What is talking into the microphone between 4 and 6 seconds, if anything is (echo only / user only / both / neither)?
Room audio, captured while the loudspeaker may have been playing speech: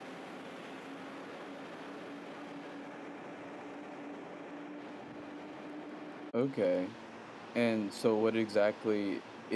neither